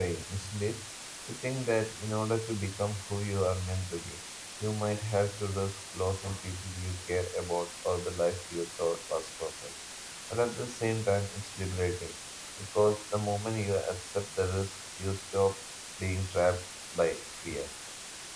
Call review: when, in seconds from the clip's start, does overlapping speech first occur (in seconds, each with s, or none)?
none